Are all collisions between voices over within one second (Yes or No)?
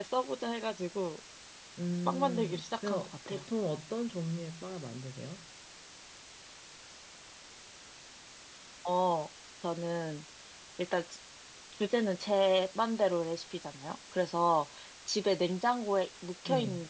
No